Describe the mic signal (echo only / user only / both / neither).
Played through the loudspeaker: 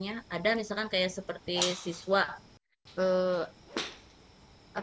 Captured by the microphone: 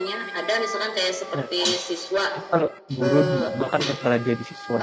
both